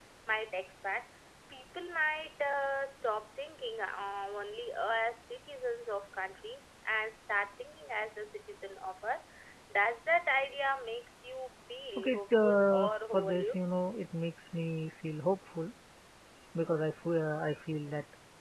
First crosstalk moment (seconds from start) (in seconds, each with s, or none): 12.0 s